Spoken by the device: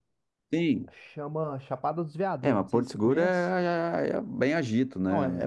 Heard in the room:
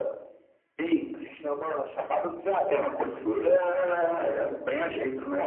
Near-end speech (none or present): none